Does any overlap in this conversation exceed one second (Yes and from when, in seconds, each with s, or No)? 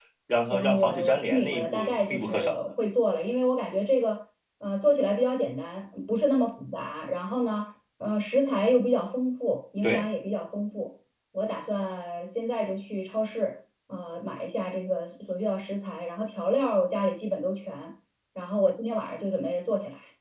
Yes, from 0.5 s